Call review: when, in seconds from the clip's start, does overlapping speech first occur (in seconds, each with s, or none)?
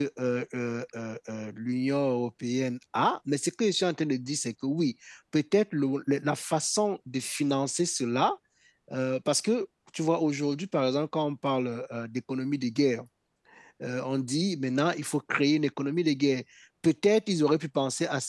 none